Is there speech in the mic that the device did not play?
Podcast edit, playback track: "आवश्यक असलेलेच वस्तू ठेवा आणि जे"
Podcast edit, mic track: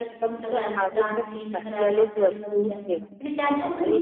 Yes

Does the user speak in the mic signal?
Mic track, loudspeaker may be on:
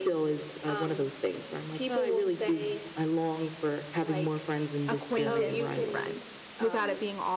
Yes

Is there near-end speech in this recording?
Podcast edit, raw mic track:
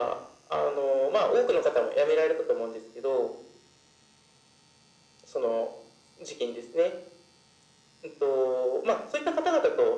No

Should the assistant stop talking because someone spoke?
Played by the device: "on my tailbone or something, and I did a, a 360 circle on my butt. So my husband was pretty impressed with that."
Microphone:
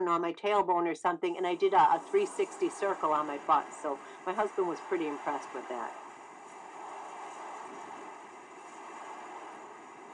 No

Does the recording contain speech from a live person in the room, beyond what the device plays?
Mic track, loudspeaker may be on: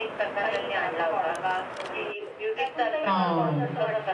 Yes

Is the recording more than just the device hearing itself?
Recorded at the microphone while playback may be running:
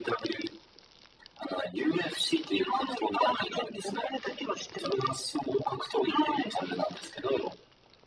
No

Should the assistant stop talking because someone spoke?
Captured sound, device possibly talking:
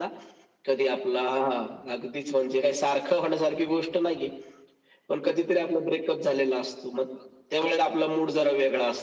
No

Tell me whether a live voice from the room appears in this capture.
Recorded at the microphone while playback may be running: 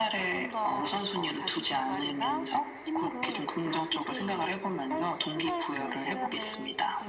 No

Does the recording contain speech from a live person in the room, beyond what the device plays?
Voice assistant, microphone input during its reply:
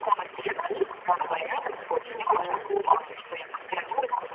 Yes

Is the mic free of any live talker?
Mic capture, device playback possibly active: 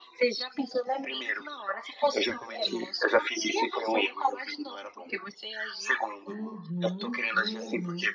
No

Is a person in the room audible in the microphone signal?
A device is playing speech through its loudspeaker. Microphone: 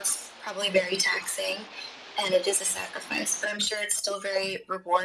No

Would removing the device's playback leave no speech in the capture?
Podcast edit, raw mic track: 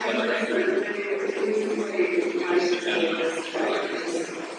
Yes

